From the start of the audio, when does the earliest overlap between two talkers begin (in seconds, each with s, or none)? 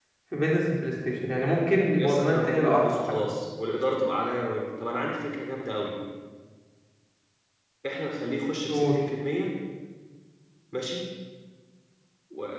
2.0 s